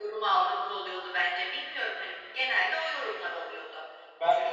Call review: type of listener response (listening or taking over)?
listening